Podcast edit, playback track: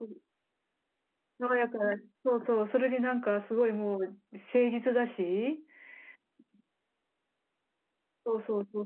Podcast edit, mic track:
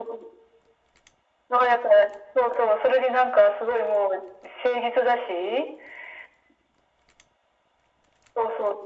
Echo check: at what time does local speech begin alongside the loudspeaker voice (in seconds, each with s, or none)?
none